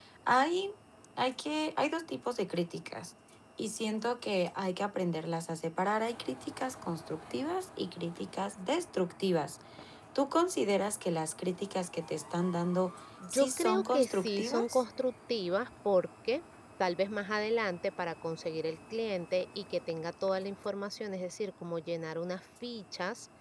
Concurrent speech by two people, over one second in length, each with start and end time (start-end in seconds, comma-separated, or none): 13.3-14.8